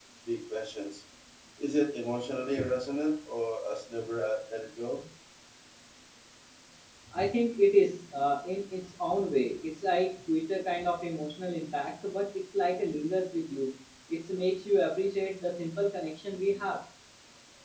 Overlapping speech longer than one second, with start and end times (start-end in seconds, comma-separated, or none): none